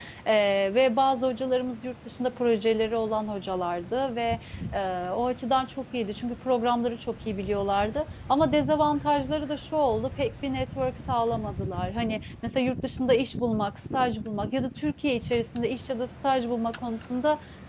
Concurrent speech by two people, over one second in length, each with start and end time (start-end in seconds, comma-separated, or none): none